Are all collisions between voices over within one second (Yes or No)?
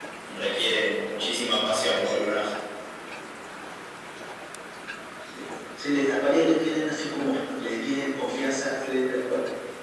Yes